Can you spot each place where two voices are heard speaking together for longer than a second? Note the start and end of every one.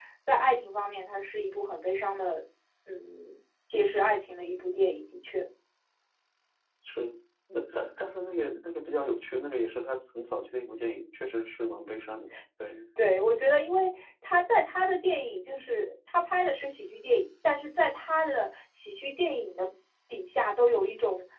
none

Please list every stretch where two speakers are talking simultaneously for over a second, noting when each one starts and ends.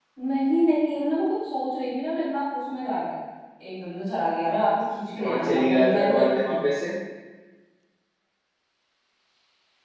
5.2-6.6

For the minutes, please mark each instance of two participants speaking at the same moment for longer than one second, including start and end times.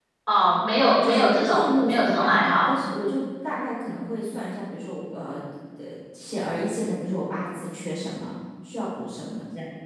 1.0-2.8

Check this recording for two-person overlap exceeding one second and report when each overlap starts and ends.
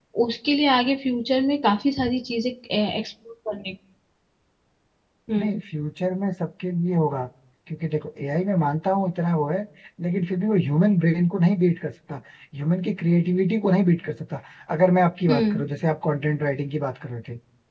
none

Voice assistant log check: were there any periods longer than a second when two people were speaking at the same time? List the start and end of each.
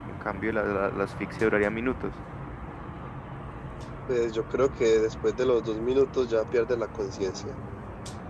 none

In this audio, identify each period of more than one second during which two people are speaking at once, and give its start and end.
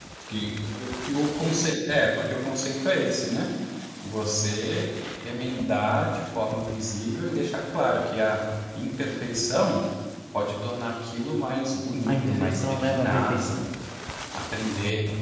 12.1-13.5

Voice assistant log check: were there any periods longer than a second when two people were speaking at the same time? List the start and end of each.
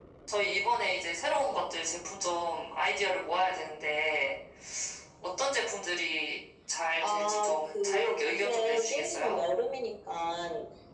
7.0-9.4

